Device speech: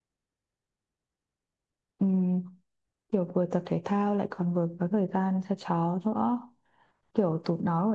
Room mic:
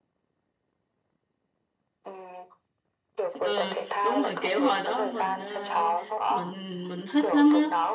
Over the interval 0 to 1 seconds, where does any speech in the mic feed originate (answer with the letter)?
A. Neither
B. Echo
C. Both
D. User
A